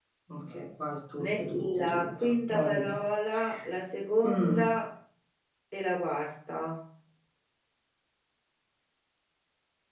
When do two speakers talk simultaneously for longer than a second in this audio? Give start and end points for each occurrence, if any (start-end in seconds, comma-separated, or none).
1.2-3.0